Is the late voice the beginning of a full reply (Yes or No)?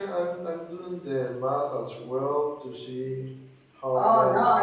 Yes